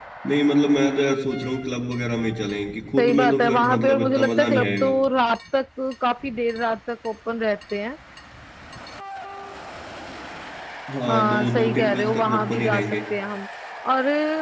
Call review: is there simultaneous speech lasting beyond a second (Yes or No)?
Yes